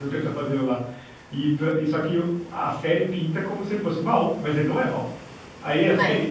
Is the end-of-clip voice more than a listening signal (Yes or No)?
No